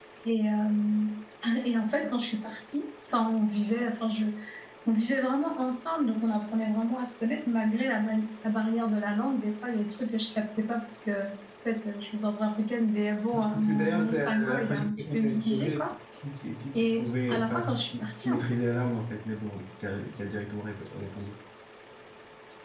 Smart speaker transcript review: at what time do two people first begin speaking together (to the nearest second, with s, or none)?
13 s